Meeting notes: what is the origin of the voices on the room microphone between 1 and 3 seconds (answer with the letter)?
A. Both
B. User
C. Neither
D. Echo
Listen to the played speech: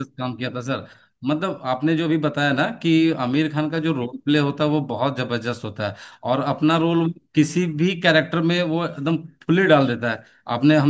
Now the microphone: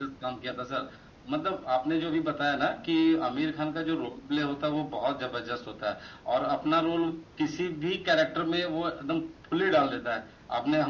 D